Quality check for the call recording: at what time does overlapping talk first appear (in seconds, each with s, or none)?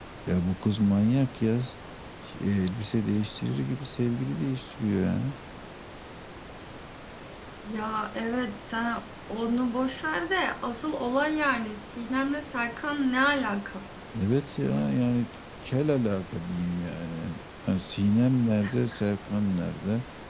none